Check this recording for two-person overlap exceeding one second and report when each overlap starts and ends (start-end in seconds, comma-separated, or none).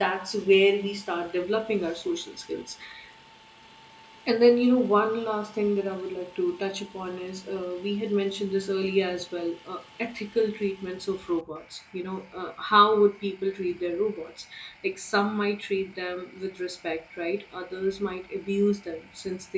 none